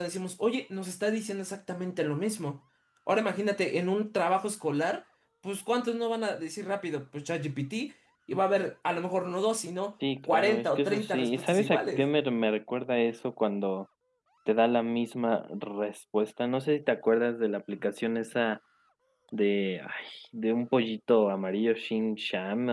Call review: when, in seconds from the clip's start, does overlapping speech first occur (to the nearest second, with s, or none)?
10 s